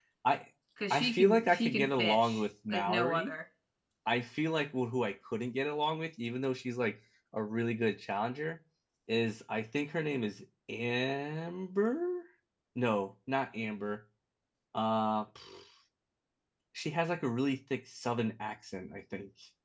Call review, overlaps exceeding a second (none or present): present